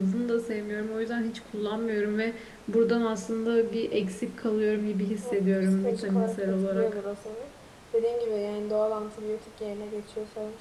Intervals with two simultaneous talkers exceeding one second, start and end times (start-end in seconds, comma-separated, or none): 5.2-7.0